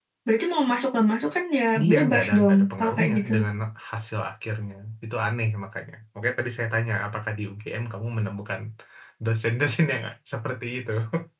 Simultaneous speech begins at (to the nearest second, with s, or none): 2 s